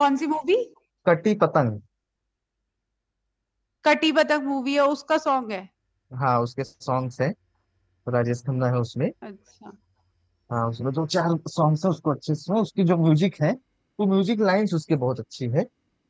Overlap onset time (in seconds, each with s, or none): none